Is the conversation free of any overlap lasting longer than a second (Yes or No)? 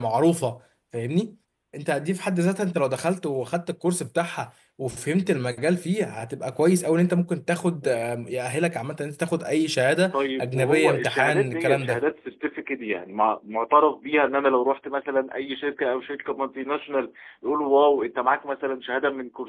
No